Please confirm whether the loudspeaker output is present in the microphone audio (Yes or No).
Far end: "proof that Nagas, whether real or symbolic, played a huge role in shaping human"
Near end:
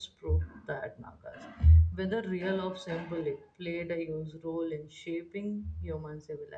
Yes